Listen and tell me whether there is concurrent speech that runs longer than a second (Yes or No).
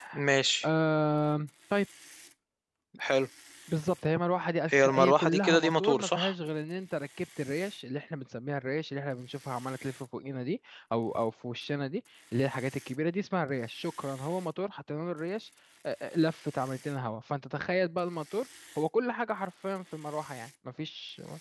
Yes